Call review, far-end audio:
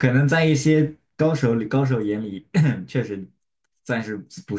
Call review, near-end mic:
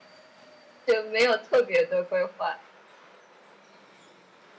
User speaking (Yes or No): Yes